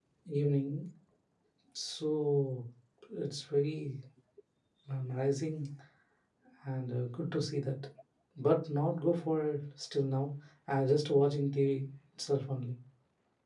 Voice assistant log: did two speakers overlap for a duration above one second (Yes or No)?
No